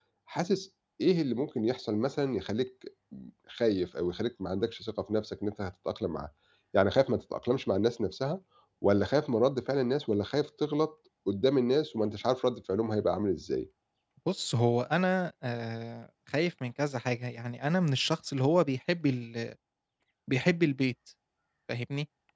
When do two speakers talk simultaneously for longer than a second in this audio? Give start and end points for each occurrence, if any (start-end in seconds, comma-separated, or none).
none